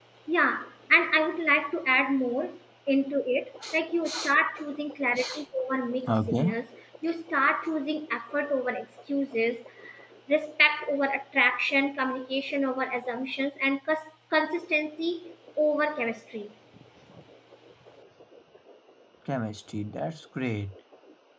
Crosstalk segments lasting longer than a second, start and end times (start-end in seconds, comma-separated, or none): none